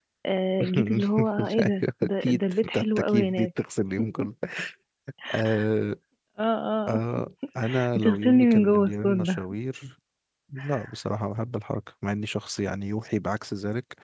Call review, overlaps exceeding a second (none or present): present